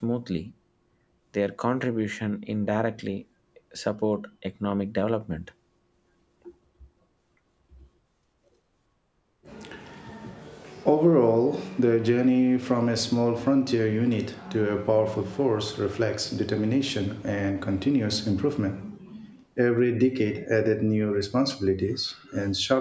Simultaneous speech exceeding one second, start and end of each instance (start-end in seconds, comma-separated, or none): none